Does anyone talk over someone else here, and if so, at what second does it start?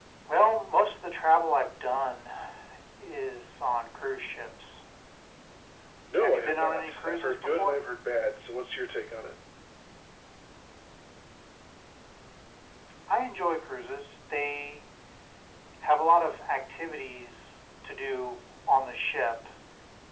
6.2 s

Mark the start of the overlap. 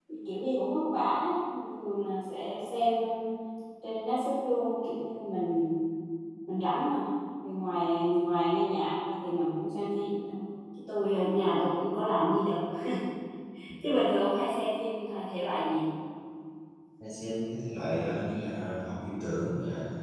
none

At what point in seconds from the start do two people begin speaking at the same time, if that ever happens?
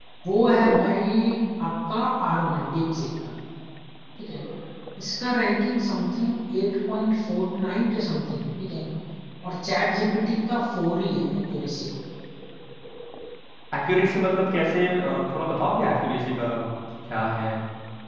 none

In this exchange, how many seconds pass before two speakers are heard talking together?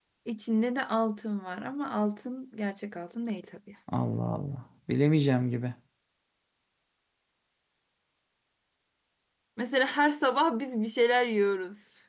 none

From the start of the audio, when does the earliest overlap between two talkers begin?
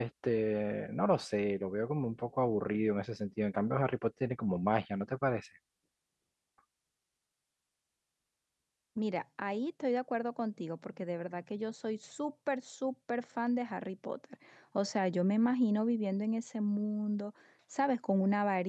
none

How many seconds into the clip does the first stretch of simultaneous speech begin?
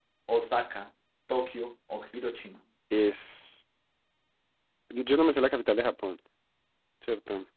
none

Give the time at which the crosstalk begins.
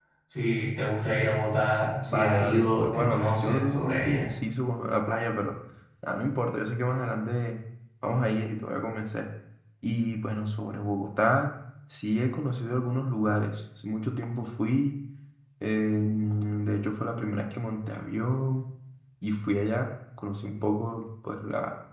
2.0 s

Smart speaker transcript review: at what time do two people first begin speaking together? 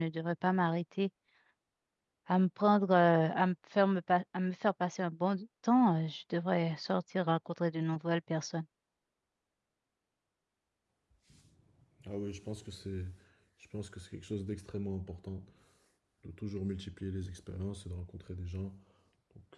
none

